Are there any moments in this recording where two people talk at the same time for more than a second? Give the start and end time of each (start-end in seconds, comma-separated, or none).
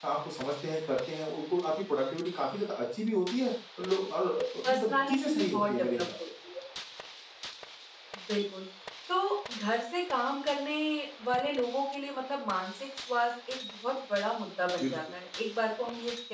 4.7-6.0